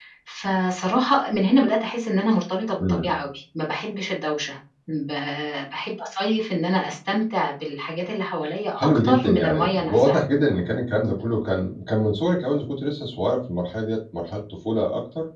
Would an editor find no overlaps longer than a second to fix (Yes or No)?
No